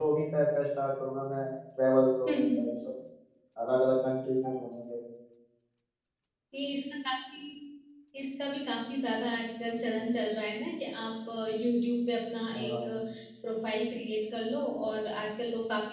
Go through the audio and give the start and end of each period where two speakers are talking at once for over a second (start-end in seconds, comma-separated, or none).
none